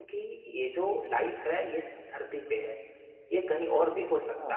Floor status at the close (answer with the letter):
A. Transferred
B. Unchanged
A